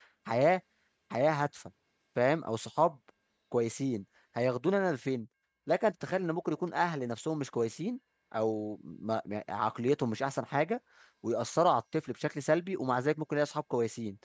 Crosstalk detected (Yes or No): No